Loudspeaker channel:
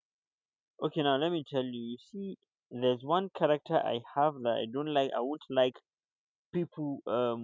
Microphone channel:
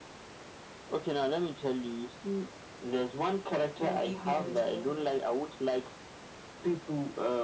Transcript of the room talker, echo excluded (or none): You're leaving as well.